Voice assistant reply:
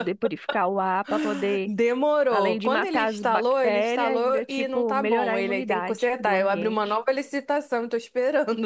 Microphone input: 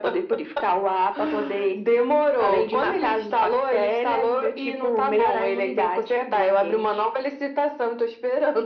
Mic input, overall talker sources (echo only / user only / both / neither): echo only